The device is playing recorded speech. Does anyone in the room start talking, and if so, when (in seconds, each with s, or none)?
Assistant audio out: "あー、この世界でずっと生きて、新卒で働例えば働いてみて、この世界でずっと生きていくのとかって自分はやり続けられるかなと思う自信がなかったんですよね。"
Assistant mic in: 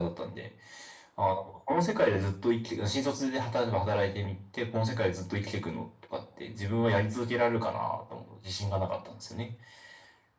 none